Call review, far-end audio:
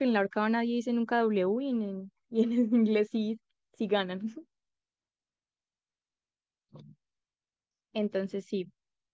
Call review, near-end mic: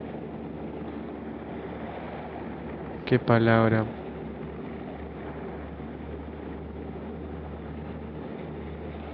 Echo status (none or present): none